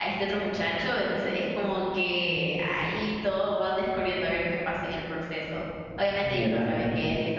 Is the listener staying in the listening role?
Yes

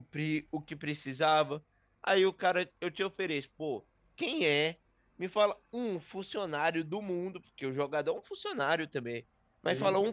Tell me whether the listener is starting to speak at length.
No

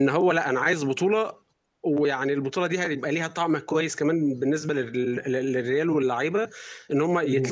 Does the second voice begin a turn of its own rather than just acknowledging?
No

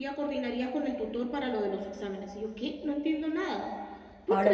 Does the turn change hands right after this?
Yes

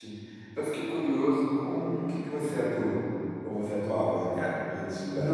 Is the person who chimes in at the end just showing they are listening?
No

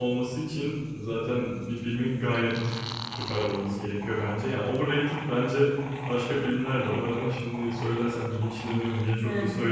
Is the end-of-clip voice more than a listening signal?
Yes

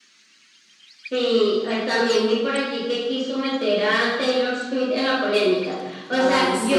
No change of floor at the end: Yes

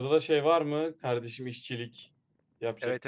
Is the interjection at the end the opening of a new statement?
Yes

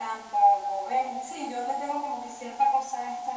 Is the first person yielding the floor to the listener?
Yes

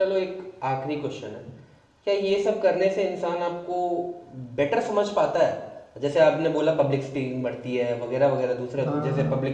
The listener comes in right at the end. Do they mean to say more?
No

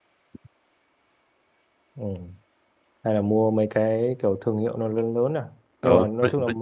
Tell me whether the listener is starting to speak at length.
Yes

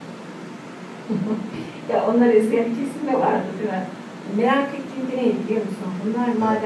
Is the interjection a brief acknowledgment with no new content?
Yes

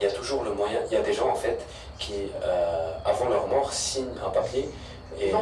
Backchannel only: No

